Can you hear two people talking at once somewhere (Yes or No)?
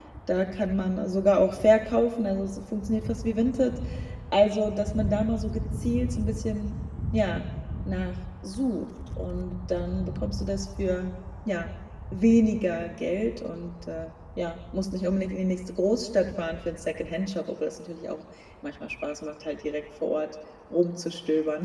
No